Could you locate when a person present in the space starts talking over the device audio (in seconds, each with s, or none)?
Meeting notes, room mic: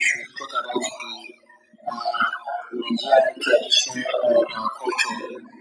none